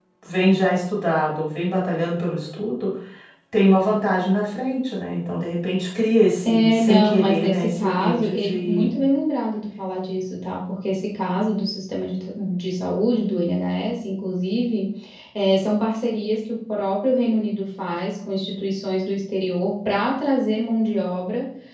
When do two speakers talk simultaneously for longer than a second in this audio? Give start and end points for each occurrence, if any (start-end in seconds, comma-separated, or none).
6.5-8.8